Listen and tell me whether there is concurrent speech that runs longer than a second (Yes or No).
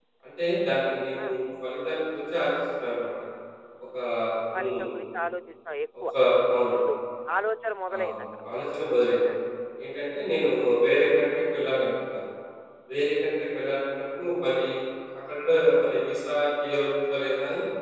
No